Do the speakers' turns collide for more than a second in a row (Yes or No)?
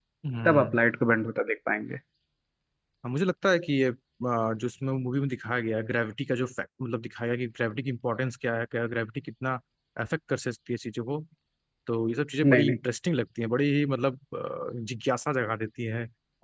No